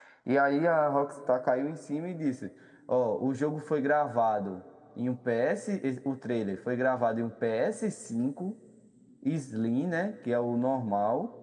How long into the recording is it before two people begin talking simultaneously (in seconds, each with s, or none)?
none